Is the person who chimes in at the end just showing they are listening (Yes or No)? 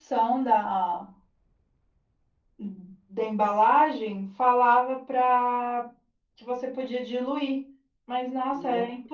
Yes